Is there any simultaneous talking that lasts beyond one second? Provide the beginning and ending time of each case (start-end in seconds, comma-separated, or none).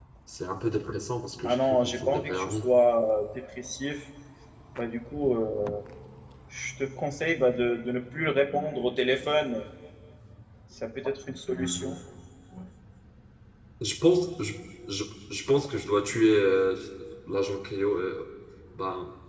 1.4-2.7